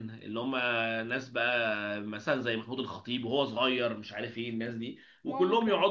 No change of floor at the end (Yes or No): Yes